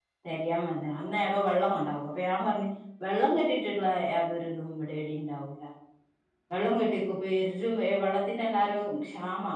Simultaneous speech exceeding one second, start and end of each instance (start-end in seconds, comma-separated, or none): none